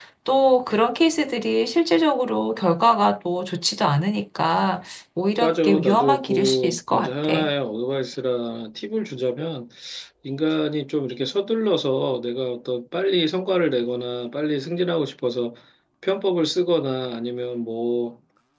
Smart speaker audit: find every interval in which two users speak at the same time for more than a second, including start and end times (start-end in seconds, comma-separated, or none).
5.4-7.3